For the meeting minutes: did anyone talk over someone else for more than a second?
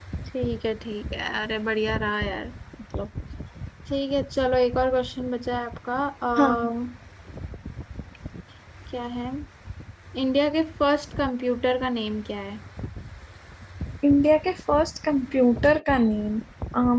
No

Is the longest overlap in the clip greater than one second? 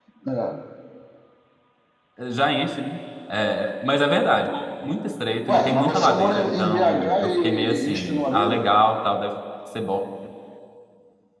Yes, from 5.5 s

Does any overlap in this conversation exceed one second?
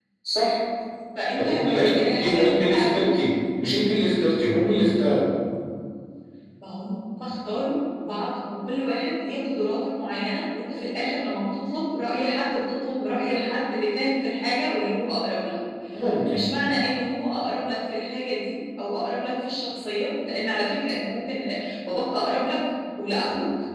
Yes, from 1.4 s

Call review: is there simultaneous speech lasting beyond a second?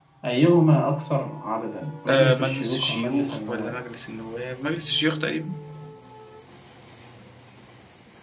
Yes, from 2.1 s

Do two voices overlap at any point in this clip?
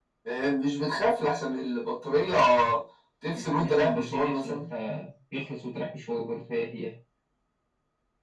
Yes, from 3.3 s

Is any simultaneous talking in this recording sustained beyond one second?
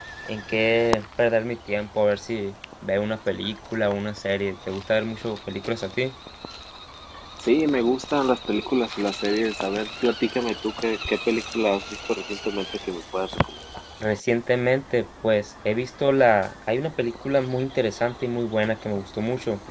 No

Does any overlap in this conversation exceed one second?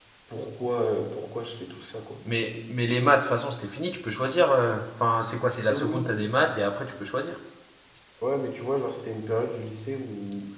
No

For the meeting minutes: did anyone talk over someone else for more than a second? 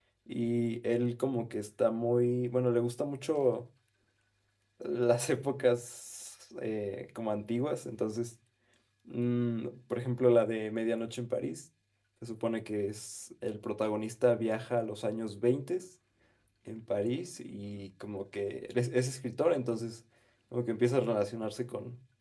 No

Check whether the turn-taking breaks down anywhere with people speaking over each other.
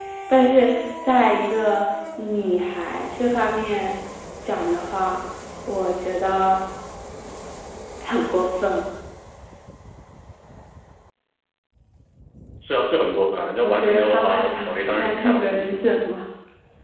Yes, from 13.6 s

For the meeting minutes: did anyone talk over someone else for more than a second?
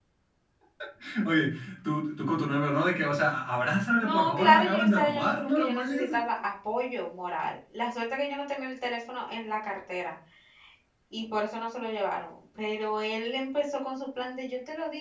Yes, from 4.0 s

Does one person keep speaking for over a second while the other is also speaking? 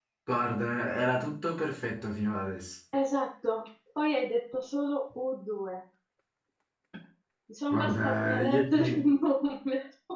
Yes, from 7.7 s

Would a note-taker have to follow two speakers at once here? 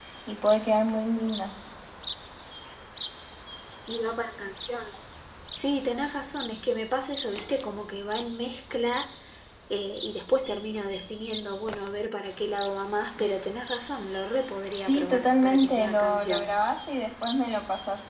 Yes, from 14.7 s

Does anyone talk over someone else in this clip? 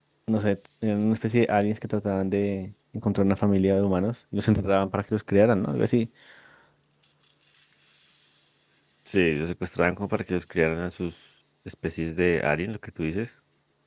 No

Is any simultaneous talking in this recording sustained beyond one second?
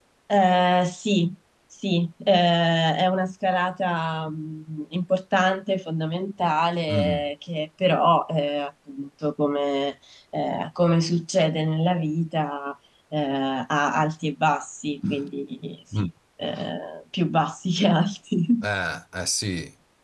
No

